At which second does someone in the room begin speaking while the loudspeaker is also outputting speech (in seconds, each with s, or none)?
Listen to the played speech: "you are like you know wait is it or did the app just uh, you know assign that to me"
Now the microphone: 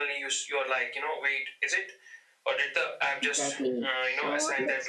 3.2 s